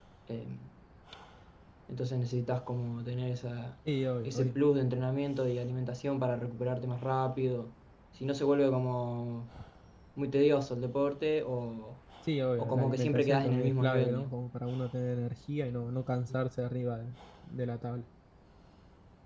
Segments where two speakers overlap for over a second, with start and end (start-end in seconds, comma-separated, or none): 12.6-14.3